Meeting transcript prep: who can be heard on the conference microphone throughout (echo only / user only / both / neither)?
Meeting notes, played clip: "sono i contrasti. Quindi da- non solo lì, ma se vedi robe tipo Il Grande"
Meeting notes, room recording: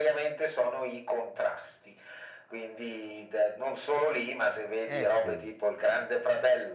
both